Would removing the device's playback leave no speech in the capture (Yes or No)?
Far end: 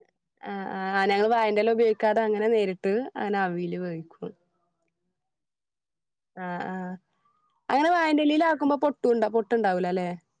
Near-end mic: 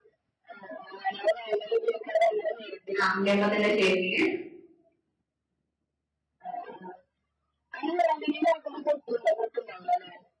No